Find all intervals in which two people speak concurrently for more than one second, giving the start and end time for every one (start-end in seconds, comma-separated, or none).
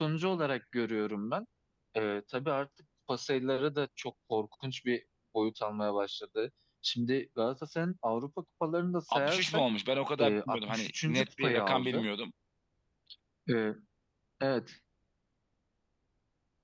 10.2-12.1